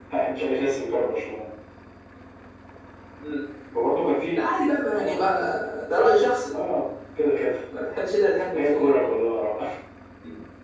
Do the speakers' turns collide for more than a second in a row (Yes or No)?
No